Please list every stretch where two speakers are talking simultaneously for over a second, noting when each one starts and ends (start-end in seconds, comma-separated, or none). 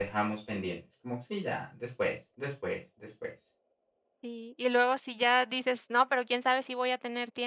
none